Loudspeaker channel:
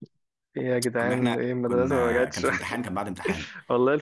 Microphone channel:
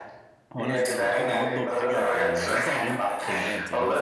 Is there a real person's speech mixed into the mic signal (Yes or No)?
Yes